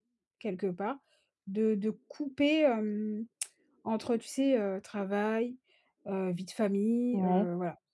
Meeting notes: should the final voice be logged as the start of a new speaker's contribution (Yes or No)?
No